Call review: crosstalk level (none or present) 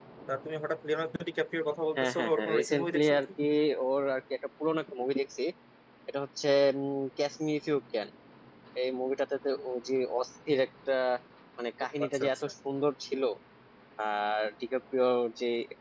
present